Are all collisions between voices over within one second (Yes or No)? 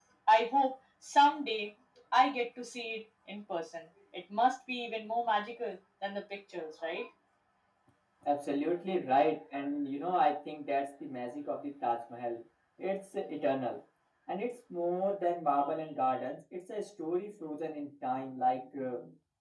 Yes